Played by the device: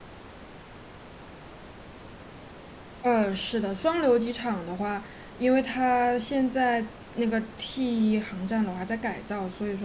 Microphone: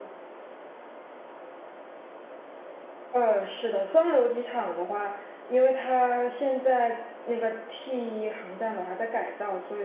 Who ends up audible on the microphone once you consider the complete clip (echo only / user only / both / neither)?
echo only